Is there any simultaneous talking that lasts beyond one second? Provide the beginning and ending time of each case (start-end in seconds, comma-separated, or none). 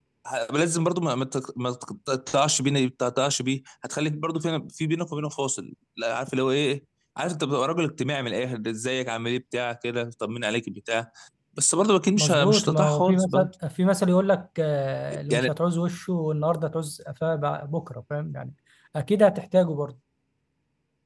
12.2-13.5